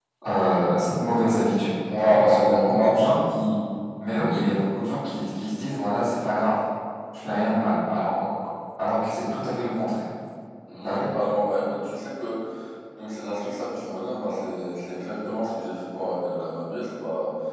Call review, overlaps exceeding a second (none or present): present